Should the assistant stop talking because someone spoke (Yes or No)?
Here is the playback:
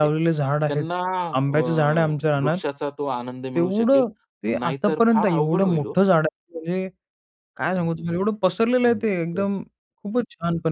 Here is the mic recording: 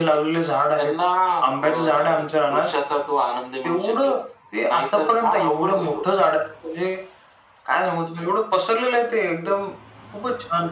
No